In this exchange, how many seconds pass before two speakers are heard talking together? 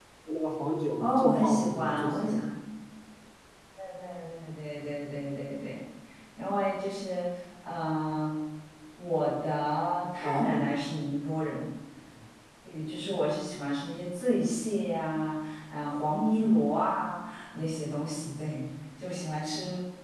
1.0 s

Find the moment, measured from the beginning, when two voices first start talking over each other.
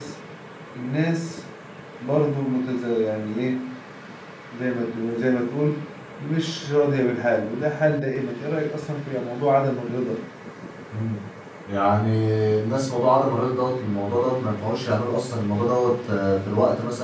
none

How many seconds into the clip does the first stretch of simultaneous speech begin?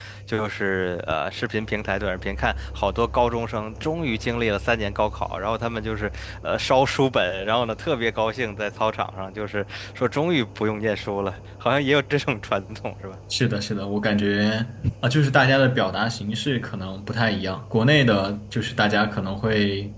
none

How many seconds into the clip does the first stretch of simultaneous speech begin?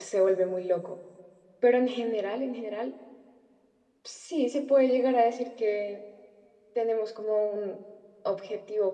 none

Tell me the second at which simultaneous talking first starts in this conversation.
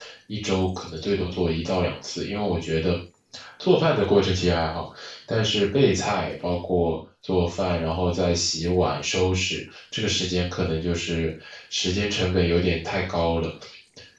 none

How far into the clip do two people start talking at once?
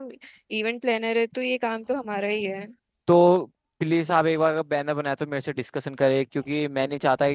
none

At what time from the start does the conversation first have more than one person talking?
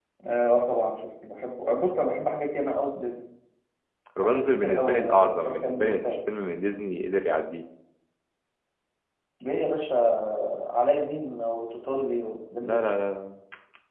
4.2 s

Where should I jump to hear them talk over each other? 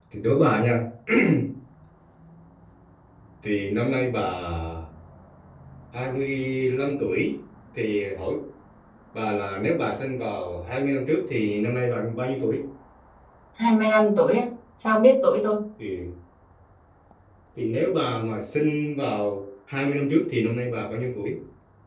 none

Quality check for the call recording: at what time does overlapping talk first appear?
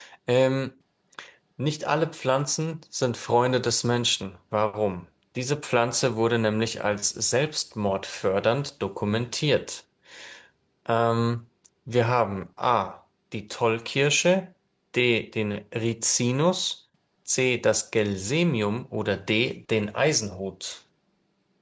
none

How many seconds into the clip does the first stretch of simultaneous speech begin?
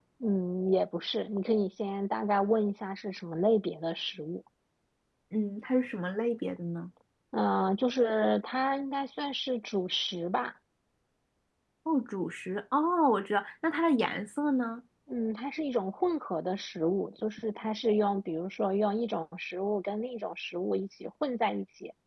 none

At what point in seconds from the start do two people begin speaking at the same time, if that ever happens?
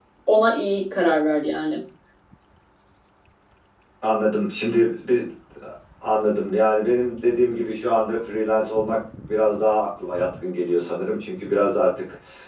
none

